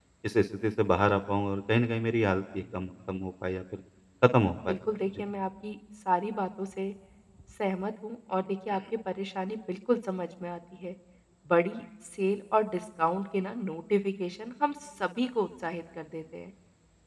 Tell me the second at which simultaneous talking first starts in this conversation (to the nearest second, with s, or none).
none